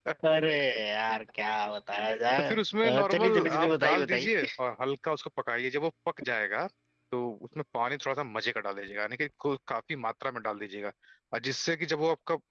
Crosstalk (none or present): present